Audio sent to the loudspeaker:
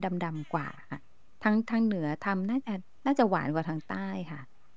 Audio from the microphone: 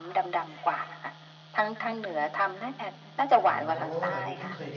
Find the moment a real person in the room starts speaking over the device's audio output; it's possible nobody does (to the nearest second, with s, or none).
3 s